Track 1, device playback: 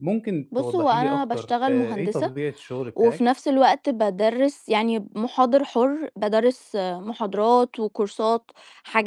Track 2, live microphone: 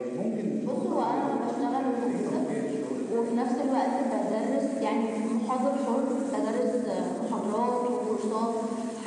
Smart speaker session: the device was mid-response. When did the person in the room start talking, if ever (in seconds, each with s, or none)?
none